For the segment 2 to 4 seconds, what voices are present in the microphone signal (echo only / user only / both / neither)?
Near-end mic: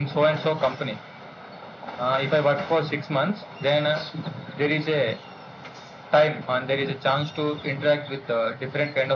echo only